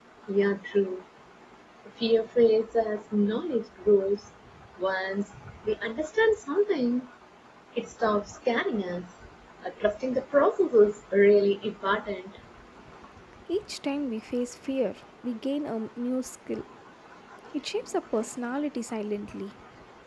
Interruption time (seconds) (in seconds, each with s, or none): none